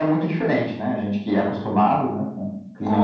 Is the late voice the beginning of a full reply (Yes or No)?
Yes